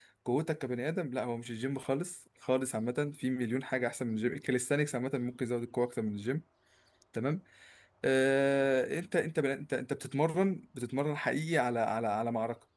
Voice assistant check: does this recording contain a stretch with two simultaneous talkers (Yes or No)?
No